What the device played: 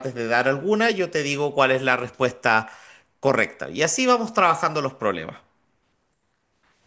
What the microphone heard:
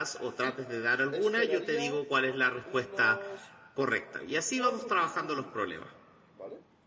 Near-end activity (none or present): present